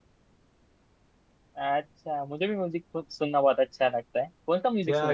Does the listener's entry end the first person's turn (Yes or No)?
Yes